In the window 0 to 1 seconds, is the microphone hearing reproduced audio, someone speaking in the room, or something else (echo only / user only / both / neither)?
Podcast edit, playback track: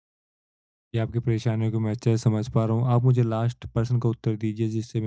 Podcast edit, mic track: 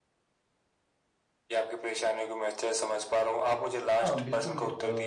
neither